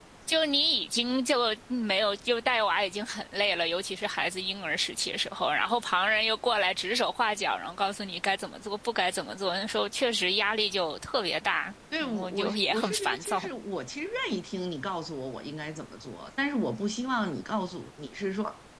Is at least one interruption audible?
Yes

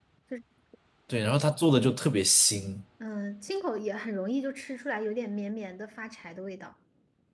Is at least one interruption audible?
No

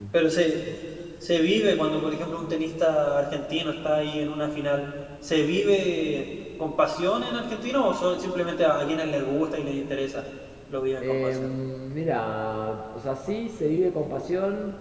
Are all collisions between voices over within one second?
Yes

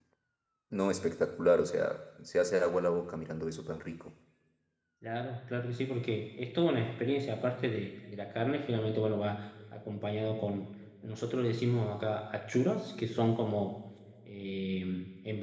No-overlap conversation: Yes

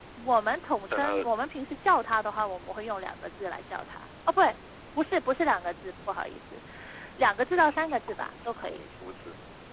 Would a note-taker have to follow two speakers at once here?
Yes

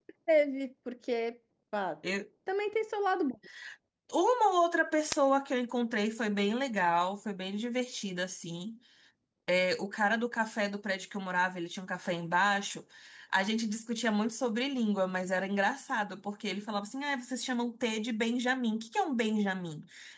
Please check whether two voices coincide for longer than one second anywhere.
No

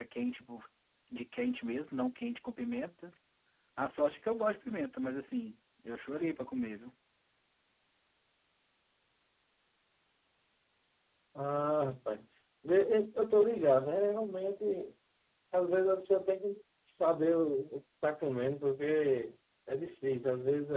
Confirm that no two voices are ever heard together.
Yes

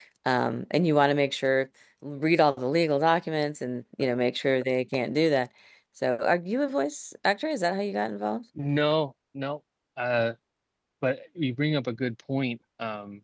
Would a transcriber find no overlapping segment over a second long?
Yes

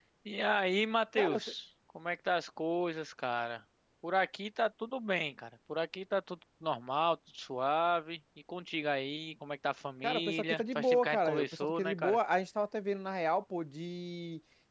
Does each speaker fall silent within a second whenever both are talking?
No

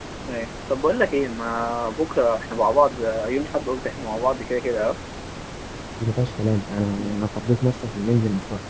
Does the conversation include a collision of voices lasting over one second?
No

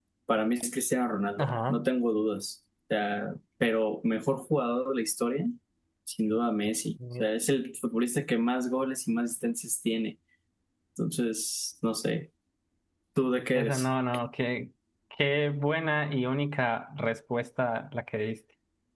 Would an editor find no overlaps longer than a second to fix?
Yes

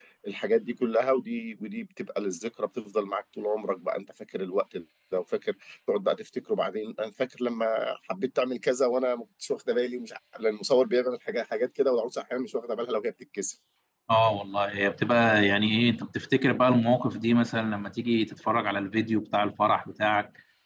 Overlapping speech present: No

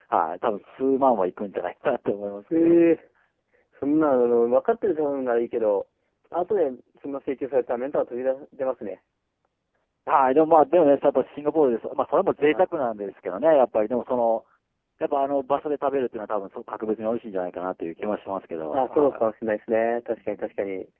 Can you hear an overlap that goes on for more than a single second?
No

